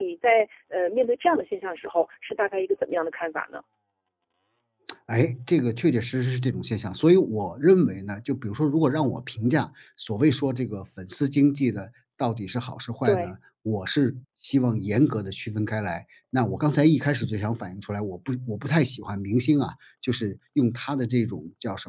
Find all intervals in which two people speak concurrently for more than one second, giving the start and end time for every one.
none

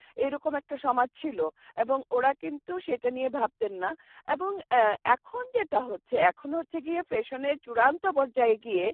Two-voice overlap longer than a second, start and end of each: none

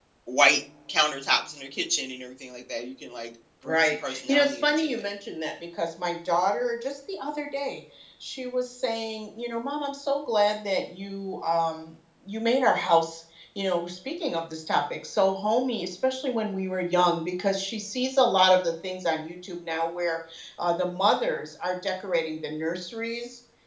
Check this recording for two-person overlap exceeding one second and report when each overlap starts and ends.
3.6-5.0

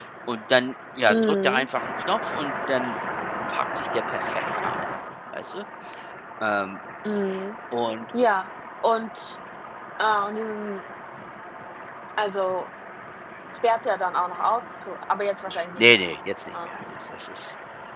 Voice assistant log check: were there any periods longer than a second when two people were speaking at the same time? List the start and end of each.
none

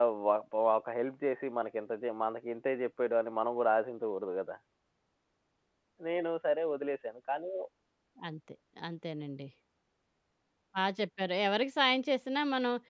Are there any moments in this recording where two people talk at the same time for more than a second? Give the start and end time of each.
none

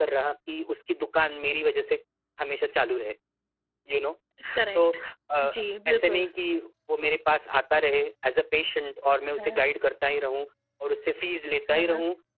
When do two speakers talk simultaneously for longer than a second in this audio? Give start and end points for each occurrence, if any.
none

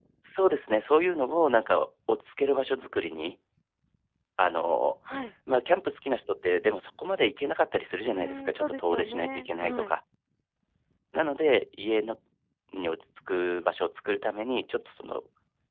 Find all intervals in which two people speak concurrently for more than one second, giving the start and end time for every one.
8.1-9.9

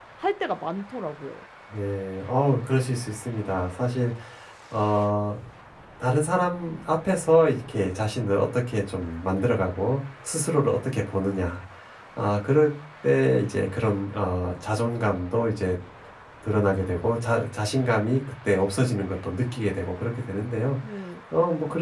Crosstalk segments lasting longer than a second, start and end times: none

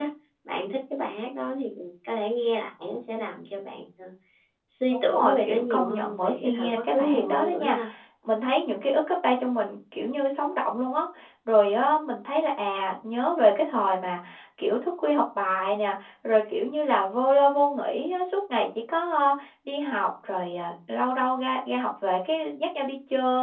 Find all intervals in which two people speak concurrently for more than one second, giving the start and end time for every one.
4.9-7.8

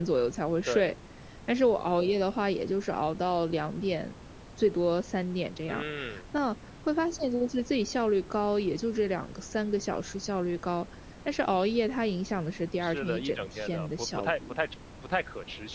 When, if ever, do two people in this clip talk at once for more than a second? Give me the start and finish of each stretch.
12.8-14.6

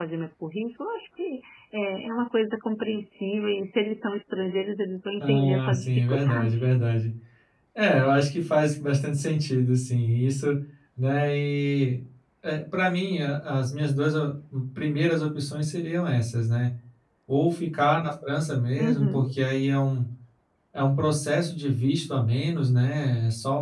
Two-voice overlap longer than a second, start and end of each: 5.2-6.7

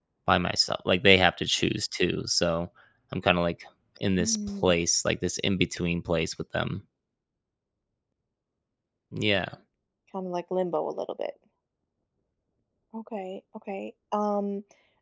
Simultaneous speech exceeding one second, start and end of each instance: none

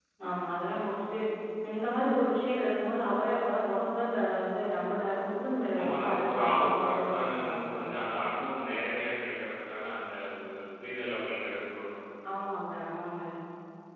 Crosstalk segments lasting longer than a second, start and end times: 5.8-7.8

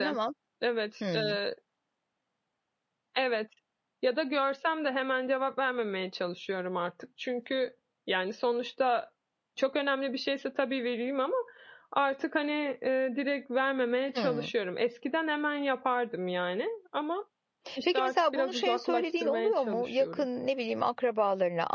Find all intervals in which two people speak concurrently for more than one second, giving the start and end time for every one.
17.9-20.3

